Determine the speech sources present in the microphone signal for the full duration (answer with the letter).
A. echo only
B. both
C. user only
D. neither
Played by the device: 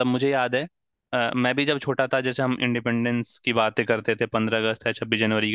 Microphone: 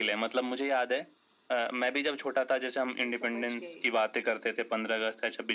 B